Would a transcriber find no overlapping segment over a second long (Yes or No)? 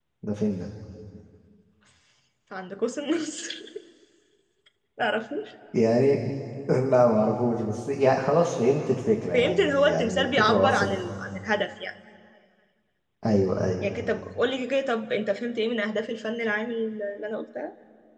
No